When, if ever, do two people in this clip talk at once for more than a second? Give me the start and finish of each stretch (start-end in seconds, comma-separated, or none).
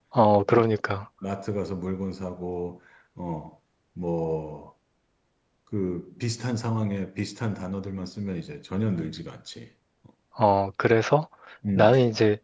none